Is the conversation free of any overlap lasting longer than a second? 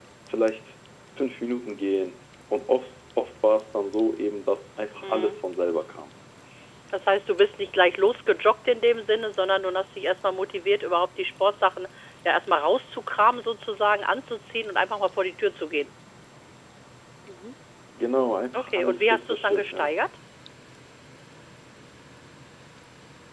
No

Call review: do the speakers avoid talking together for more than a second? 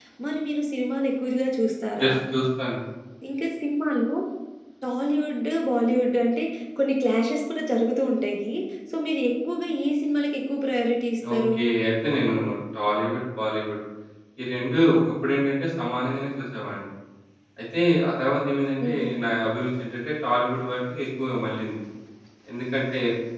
Yes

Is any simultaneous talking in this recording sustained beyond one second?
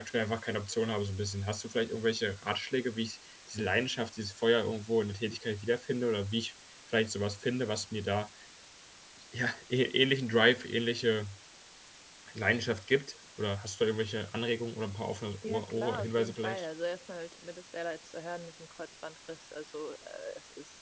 Yes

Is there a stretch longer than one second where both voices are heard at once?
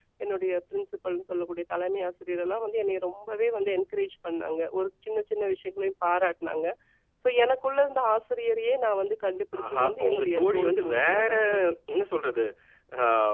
Yes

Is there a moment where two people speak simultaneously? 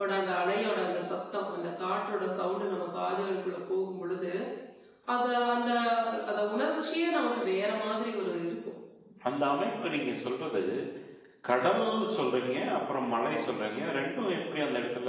No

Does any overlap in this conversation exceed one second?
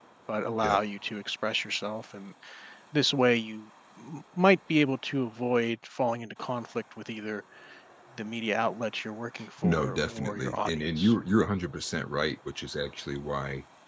Yes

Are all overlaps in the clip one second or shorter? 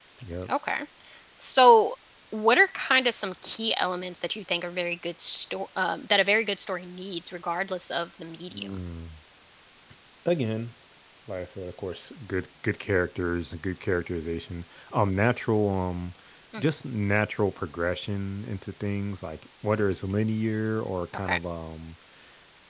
Yes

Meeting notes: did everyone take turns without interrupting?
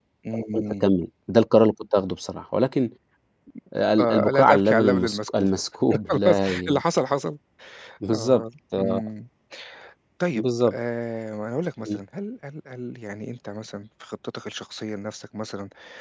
No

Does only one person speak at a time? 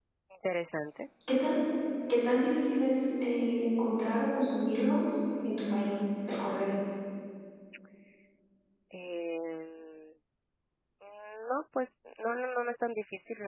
Yes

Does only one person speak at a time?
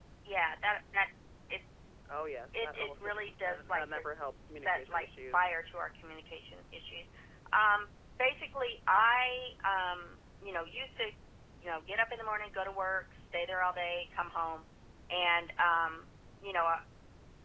No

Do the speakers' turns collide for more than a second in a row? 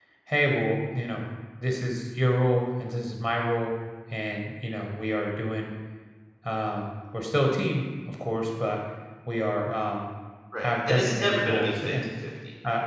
Yes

